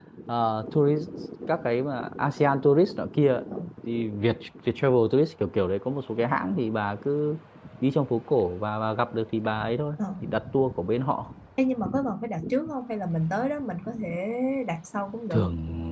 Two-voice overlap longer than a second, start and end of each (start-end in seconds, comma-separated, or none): none